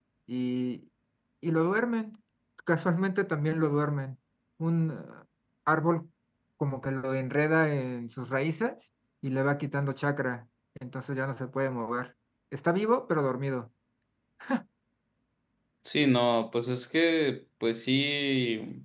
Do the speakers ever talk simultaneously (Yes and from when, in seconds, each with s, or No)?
No